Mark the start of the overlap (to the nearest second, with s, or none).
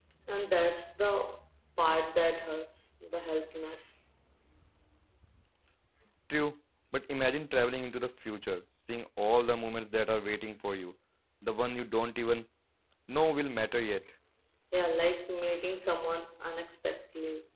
none